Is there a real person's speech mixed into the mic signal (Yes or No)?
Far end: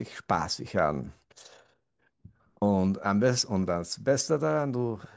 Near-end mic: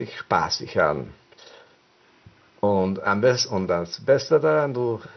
No